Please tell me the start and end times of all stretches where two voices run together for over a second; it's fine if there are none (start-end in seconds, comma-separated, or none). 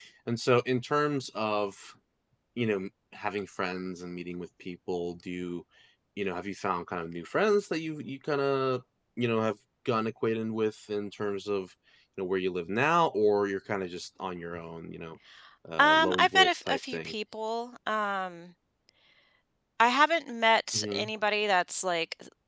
15.8-17.1